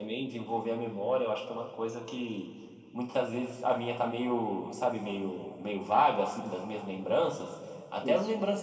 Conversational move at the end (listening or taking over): listening